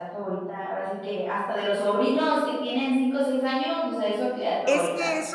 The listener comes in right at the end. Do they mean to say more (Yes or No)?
Yes